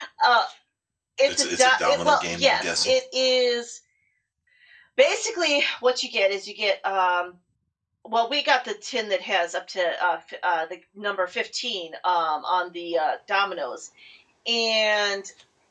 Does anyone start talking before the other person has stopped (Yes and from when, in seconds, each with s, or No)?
Yes, from 1.3 s